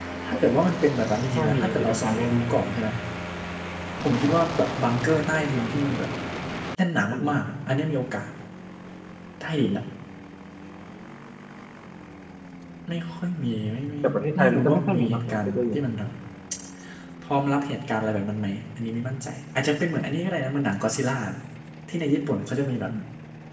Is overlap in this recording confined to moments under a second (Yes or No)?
No